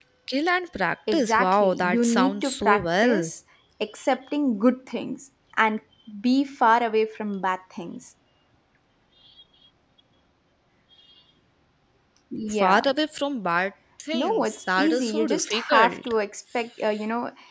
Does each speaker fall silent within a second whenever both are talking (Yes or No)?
No